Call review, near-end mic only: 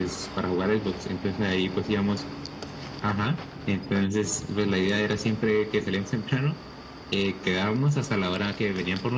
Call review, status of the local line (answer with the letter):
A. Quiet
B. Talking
A